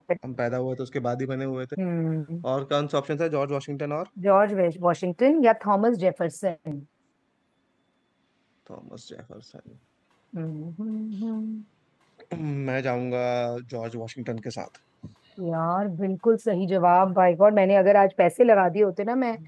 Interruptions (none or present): none